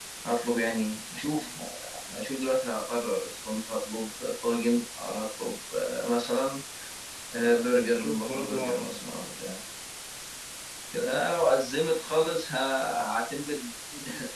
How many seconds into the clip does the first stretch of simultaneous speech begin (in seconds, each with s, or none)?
7.4 s